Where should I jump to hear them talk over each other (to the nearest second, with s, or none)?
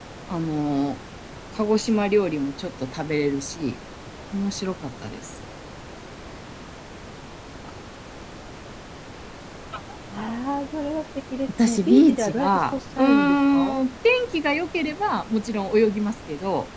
11 s